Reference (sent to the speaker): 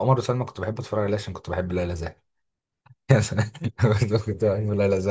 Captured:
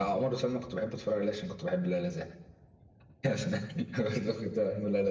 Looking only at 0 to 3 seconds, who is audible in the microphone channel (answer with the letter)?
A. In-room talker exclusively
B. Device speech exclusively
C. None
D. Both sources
B